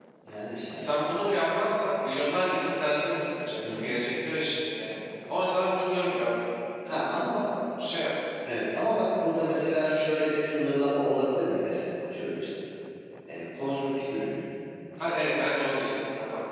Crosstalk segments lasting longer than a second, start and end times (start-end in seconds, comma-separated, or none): none